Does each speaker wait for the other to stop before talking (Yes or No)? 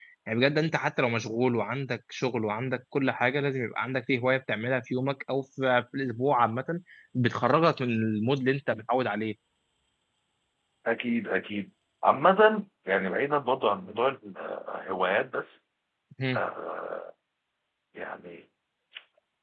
Yes